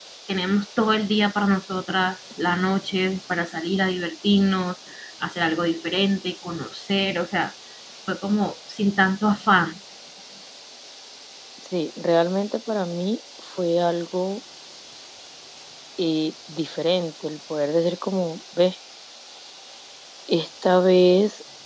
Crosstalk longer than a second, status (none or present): none